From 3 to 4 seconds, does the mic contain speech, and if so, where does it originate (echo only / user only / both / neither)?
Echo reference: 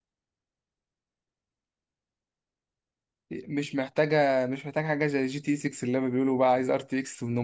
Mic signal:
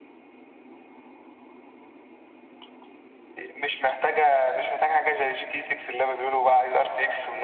echo only